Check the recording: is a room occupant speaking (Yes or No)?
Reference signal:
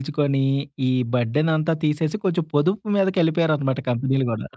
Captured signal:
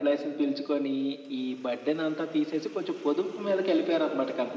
No